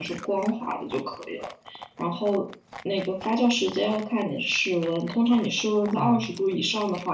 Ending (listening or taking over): listening